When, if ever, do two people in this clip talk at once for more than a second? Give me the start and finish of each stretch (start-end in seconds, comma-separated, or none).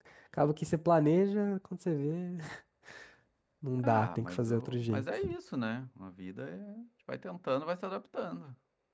3.8-5.3